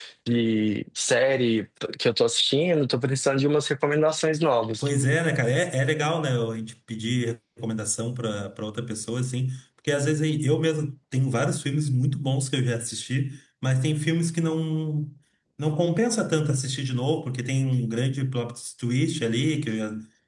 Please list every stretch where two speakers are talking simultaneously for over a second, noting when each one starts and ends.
none

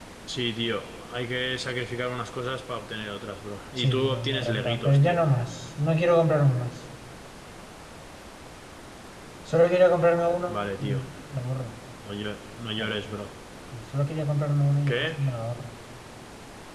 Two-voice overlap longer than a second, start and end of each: 3.8-5.2

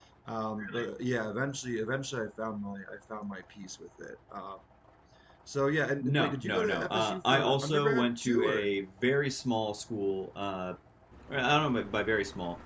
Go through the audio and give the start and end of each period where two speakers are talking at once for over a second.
6.0-8.7

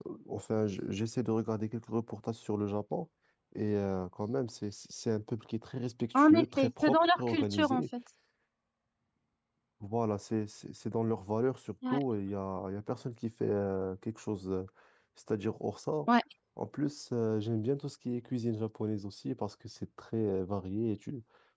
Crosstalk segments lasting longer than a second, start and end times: 6.1-7.8

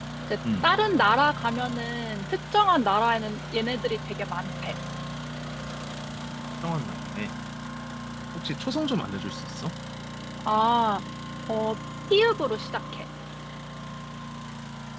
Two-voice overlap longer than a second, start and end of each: none

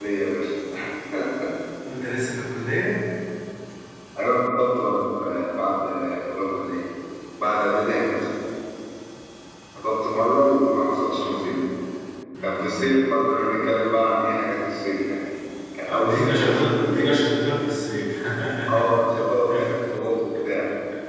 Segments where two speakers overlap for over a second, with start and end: 15.8-17.2

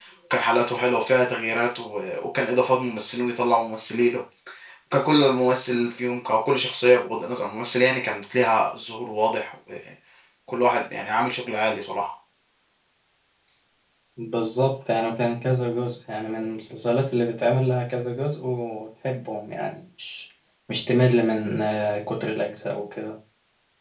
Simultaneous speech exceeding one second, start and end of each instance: none

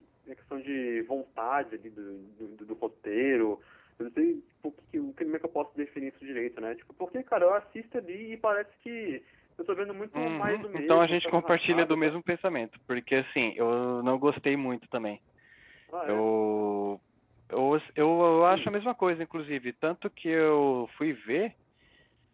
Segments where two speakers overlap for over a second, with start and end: 10.1-12.1

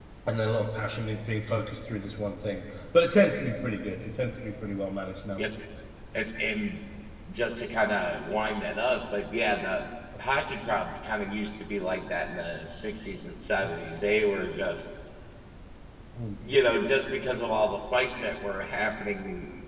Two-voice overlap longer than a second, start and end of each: none

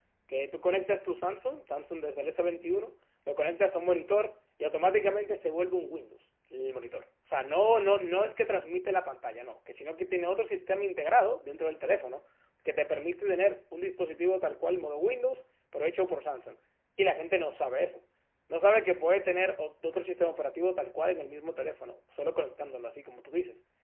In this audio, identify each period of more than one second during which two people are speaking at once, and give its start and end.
none

